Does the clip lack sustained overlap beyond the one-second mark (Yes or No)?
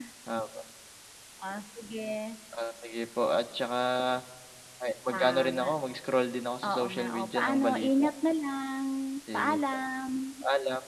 No